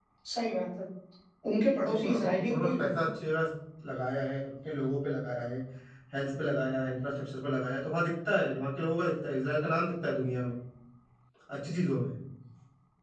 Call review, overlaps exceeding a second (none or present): present